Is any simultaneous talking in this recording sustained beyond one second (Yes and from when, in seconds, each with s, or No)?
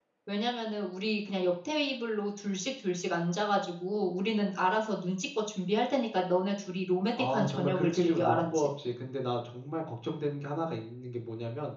Yes, from 7.2 s